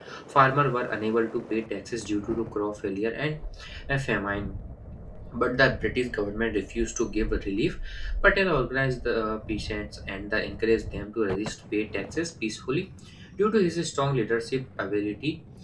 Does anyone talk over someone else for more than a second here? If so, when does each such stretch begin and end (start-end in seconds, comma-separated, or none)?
none